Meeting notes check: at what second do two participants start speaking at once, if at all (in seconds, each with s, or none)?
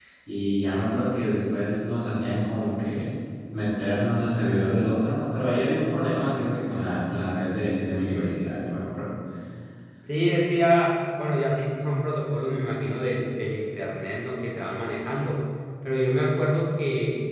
none